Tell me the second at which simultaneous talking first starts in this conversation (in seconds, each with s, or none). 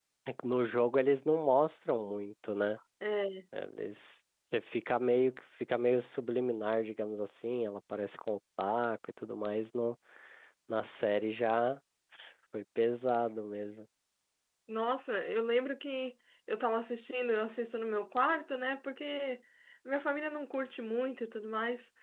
none